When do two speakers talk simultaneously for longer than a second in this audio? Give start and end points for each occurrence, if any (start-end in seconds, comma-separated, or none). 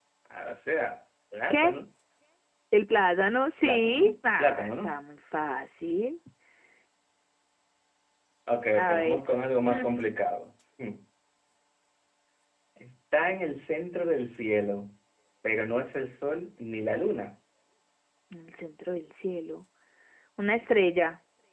3.6-5.0